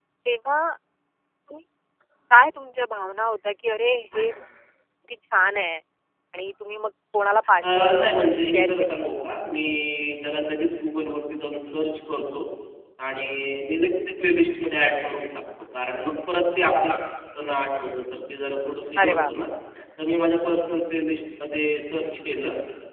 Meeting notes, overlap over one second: present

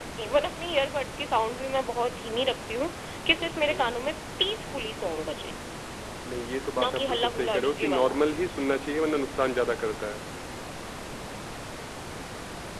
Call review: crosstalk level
present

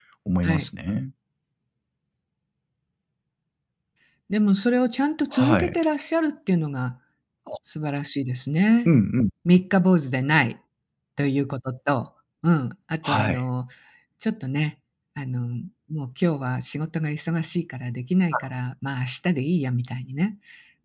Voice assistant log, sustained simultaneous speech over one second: none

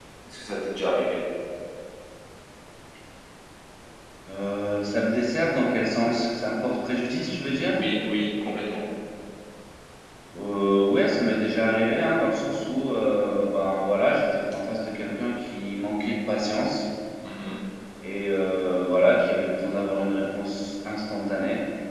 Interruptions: none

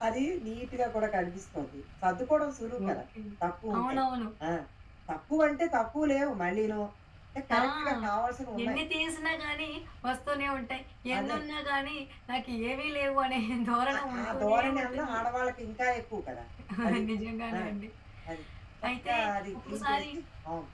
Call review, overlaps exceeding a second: present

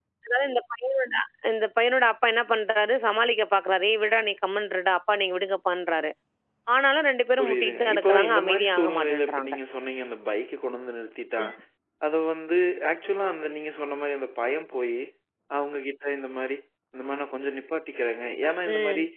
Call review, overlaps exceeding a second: present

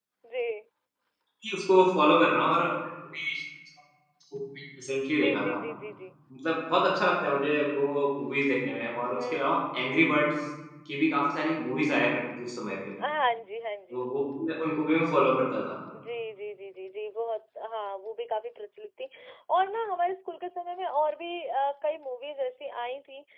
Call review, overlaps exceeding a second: none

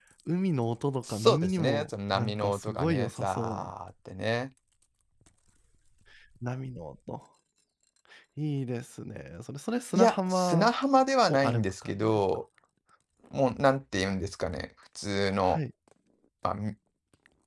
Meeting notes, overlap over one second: present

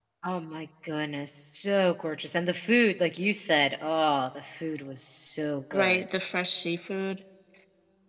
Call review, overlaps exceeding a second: none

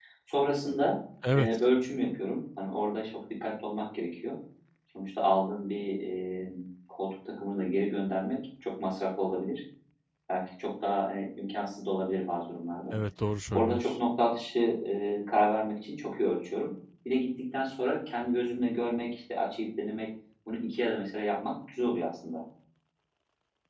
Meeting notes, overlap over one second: none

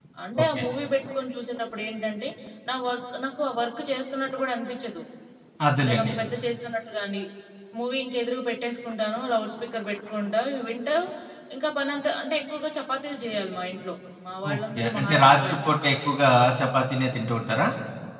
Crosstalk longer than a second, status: present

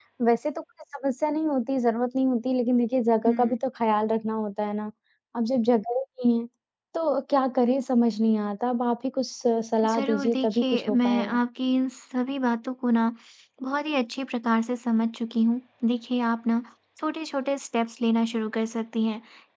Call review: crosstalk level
present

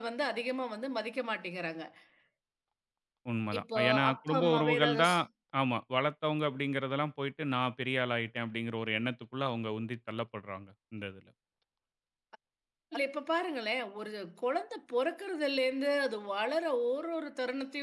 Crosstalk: present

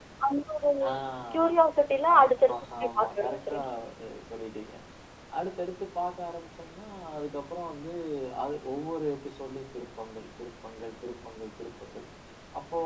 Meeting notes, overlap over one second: present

